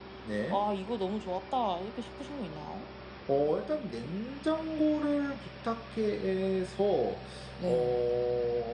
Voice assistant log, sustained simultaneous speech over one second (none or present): none